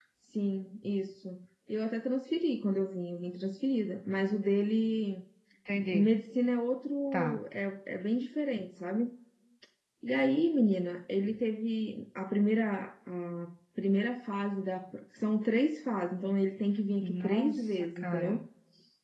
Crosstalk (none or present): present